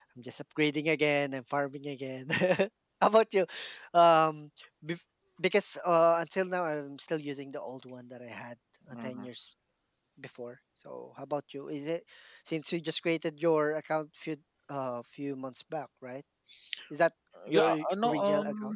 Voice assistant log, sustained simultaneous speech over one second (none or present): present